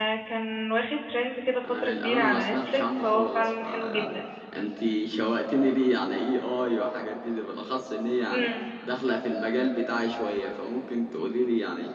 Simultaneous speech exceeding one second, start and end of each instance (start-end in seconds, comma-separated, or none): 1.8-4.2